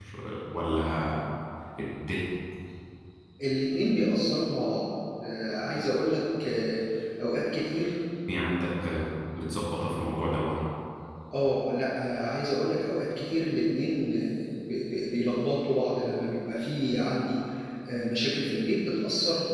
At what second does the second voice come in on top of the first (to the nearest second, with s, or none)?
none